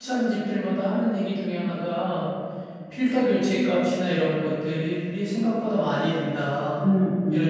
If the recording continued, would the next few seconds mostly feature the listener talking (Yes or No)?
Yes